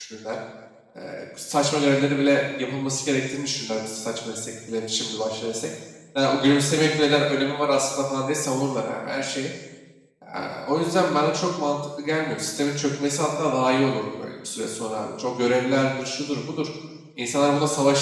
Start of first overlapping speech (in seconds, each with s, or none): none